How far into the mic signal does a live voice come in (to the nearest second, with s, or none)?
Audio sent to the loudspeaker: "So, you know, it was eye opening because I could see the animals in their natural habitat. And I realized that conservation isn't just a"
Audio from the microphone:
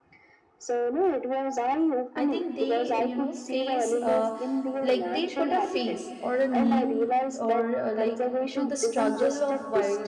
2 s